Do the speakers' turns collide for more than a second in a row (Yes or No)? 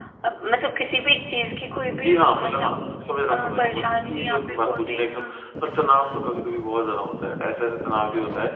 Yes